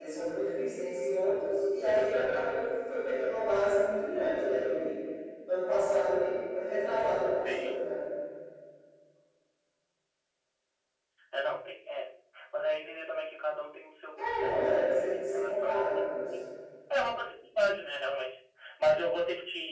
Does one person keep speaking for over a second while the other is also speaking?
Yes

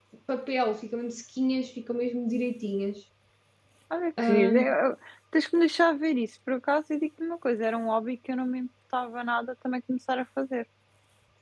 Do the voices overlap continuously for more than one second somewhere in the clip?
No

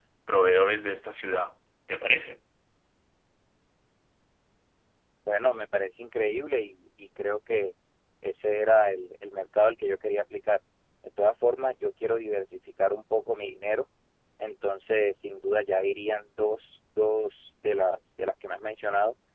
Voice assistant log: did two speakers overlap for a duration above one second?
No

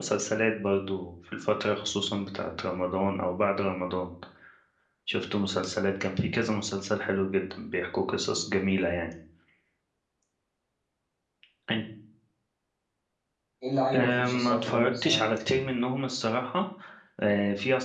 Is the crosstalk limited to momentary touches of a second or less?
No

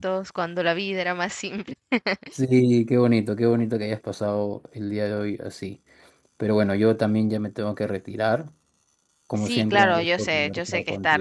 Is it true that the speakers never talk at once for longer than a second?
No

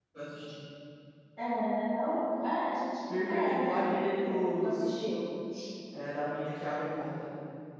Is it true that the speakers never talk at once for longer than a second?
No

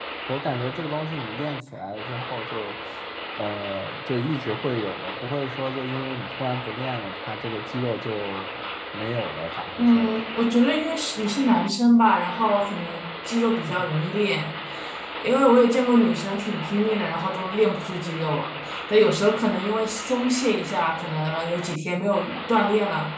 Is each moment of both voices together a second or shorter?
Yes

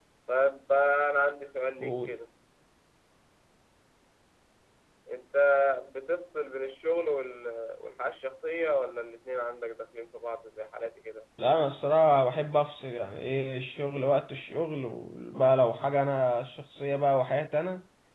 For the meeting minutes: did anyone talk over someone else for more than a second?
No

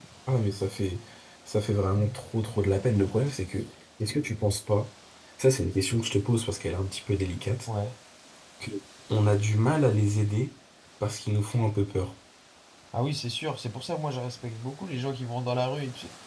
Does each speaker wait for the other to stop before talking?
Yes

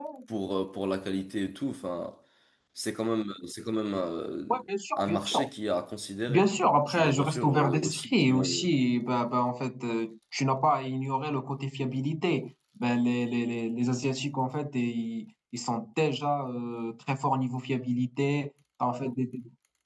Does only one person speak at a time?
No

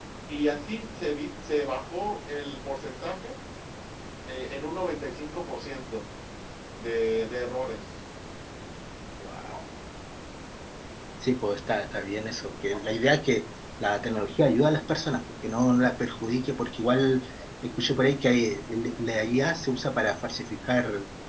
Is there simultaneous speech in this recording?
No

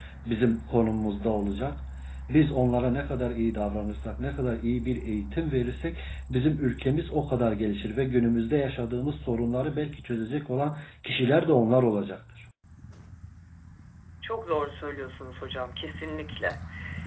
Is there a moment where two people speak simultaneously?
No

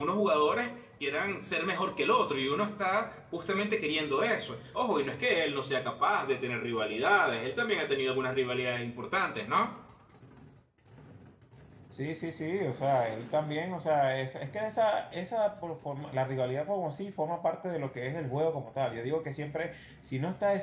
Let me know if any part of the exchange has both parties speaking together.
No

